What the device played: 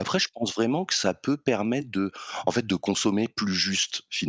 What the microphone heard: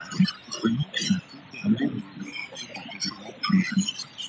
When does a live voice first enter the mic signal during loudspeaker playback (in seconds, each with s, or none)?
none